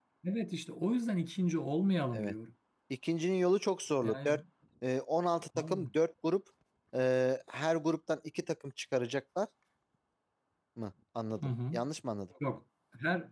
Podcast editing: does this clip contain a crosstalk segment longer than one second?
No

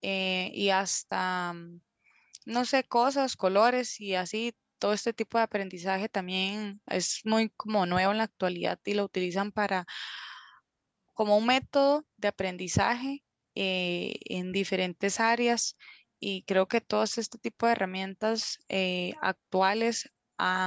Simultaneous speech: No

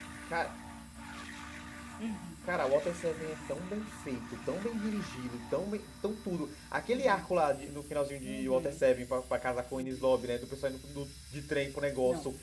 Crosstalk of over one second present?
No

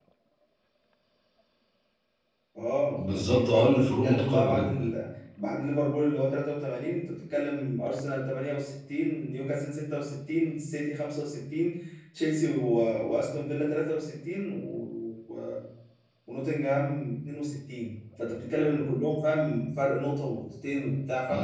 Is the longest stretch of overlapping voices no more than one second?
No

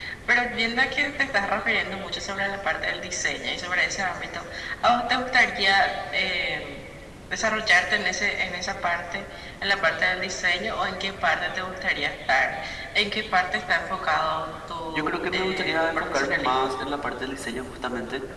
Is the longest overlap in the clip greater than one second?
Yes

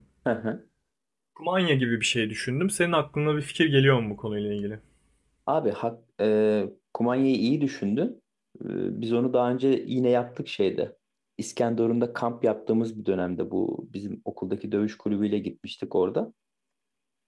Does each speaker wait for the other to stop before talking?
Yes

